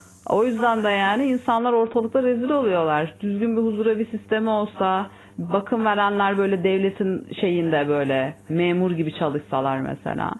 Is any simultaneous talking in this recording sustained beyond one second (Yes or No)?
No